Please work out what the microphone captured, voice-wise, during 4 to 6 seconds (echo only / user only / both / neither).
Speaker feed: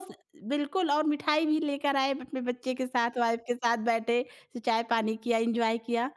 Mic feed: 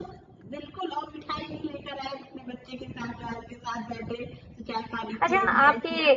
both